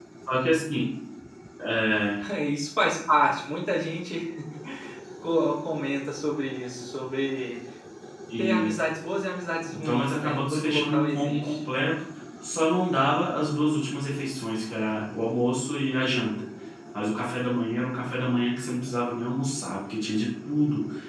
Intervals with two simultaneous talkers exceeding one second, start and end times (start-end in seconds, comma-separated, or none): 9.7-11.6